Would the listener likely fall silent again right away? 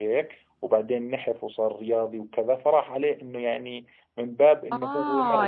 No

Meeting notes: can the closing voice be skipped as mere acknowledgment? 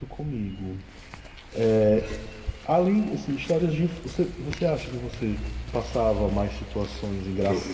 Yes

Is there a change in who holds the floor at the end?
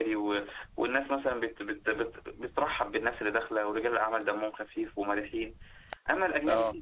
No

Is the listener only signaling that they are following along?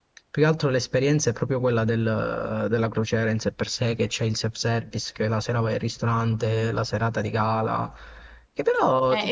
No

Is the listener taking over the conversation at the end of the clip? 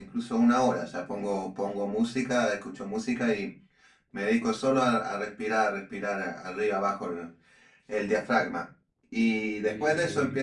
No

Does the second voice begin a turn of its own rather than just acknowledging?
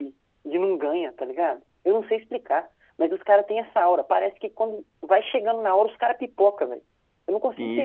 Yes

